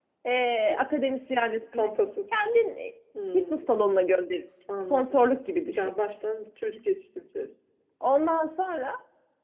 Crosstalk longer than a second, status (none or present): none